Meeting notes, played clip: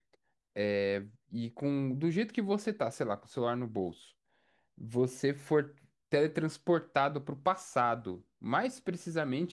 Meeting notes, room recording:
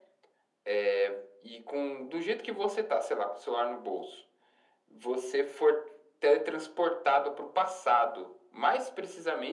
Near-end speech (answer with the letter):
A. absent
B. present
A